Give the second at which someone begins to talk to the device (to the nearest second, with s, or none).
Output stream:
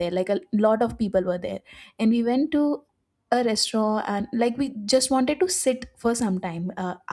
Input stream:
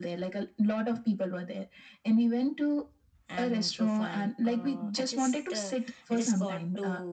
3 s